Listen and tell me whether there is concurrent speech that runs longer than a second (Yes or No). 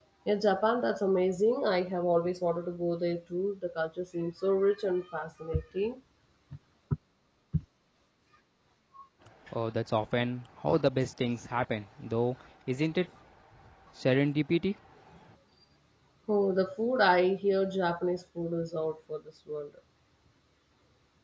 No